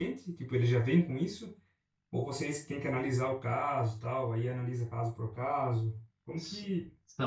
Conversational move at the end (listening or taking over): taking over